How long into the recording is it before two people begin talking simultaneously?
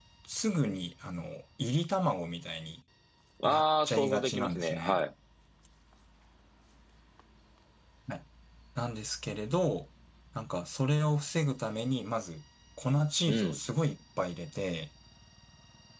3.4 s

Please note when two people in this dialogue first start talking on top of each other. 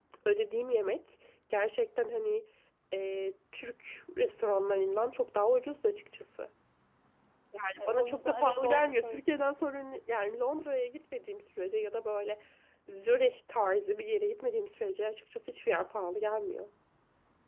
7.9 s

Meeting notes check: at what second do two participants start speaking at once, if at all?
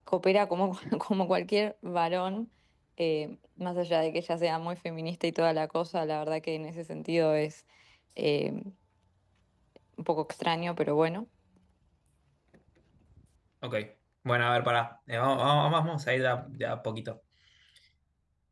none

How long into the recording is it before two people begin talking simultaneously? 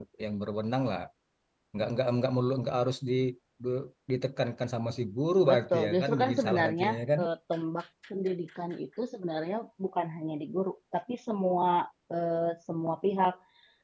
5.4 s

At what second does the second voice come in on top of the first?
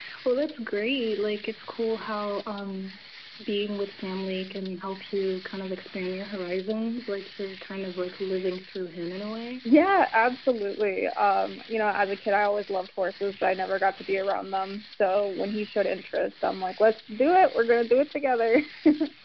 none

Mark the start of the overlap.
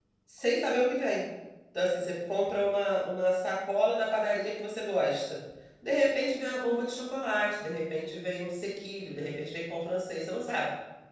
none

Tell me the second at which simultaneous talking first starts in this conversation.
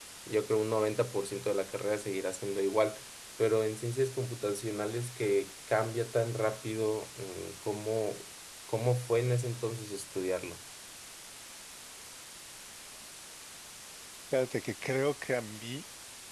none

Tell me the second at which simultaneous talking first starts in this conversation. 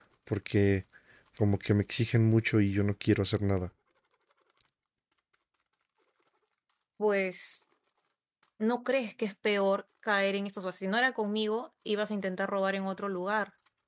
none

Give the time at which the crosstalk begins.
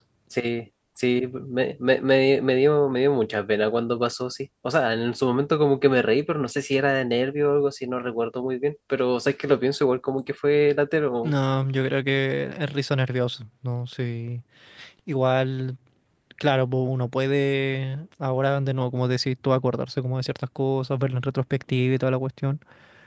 none

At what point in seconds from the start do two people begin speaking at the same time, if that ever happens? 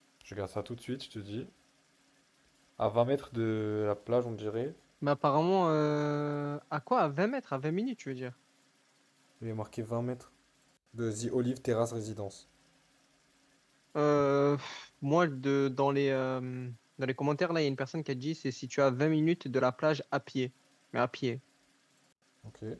none

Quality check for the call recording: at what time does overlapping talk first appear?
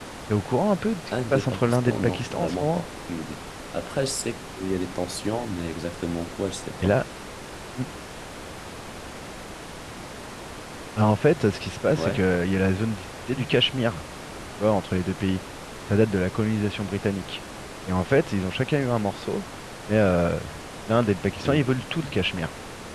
1.3 s

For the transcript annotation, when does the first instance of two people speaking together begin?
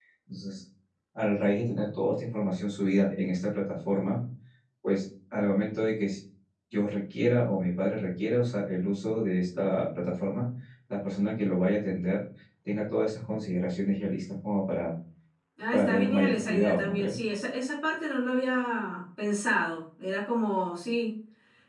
15.7 s

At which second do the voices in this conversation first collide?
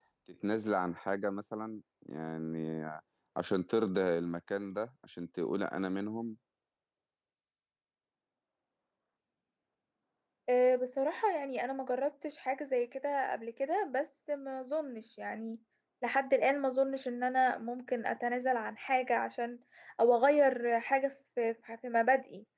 none

